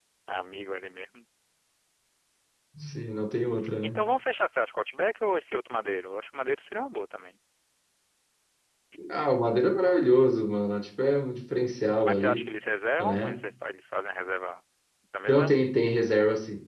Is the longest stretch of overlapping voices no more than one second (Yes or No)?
Yes